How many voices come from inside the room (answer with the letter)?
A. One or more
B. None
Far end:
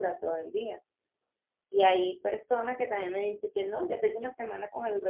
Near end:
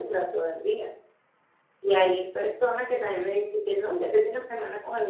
B